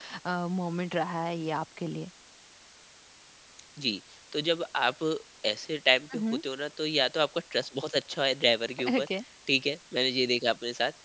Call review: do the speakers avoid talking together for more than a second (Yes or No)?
Yes